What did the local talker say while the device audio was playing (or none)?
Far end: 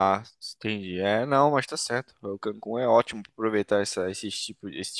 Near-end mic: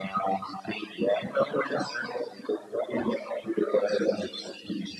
none